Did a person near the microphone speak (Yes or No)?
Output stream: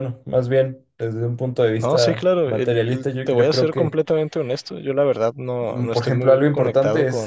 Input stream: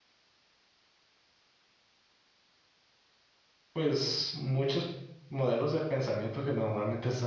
Yes